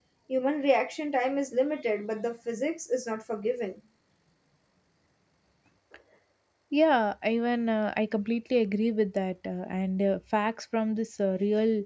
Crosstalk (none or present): none